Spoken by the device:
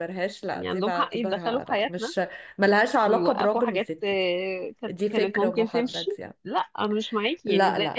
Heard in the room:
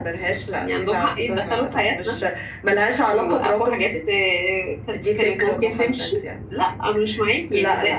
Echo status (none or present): present